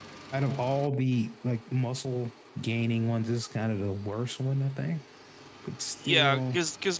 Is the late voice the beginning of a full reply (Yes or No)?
Yes